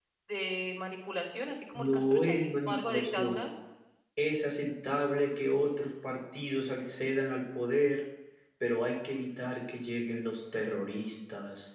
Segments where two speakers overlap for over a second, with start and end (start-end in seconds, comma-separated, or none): 1.8-3.5